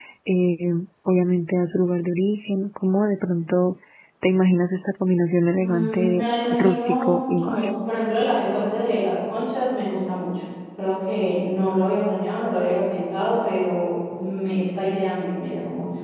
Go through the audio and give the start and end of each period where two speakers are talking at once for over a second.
5.6-7.6

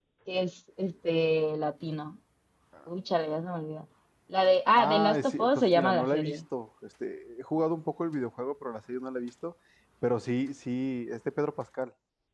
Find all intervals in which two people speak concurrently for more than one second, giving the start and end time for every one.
4.8-6.4

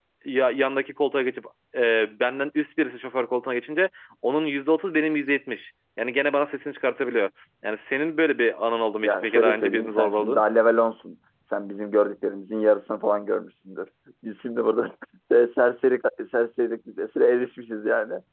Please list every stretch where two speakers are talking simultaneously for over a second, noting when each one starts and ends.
9.0-10.4

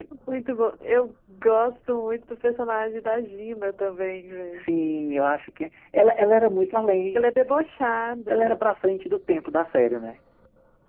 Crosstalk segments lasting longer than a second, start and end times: none

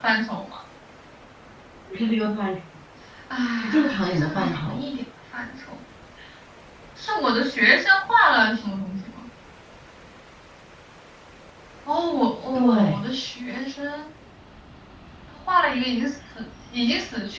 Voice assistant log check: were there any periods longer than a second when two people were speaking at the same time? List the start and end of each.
3.6-4.8

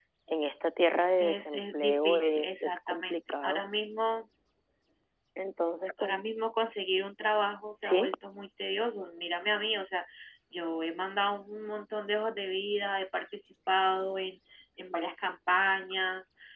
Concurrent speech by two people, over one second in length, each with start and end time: 1.2-3.6

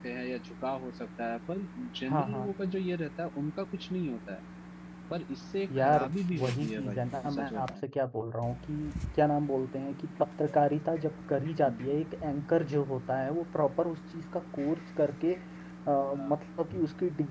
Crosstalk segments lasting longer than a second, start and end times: 6.4-7.7

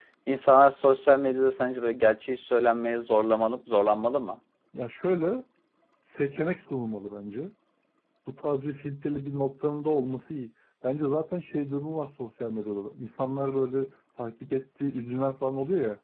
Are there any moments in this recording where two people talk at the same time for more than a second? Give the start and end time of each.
none

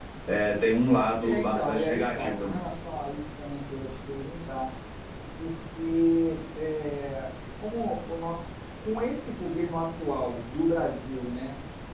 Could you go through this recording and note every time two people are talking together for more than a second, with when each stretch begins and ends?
1.2-2.6

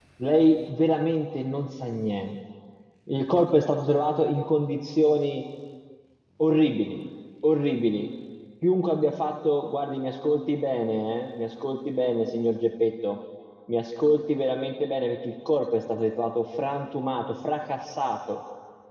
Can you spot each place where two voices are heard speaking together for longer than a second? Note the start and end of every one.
none

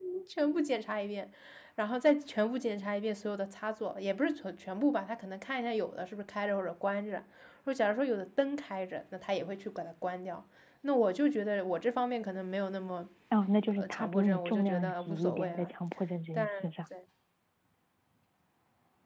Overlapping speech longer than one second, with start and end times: 13.7-15.7

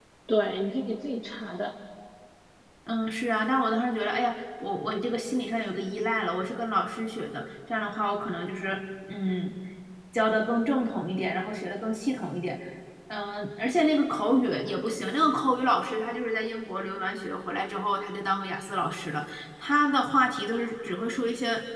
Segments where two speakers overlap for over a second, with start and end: none

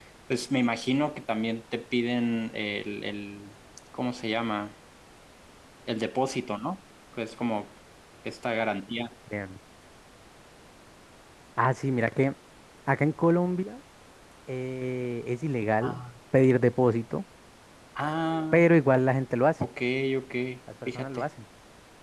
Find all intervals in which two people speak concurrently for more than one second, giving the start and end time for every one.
none

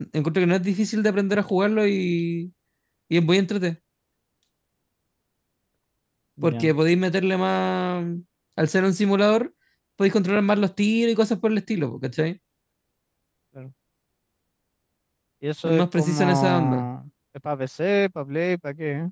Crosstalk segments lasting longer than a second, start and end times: 15.6-16.9

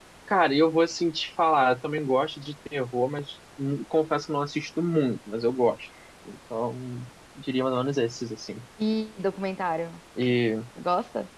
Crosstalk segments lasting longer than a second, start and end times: none

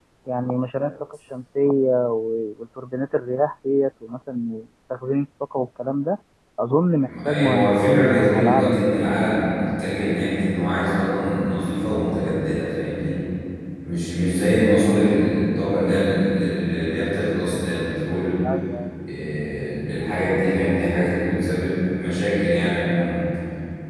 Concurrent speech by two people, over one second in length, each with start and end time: 7.2-9.1

